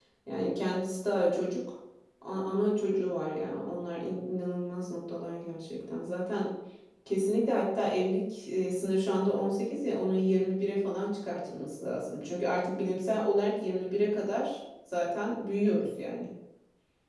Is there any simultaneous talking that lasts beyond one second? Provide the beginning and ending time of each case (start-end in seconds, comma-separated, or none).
none